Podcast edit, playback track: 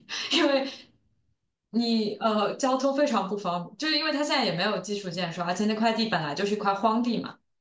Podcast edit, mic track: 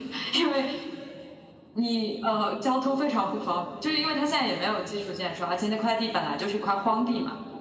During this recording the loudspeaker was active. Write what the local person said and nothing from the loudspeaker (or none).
none